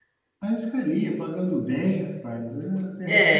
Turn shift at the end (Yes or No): Yes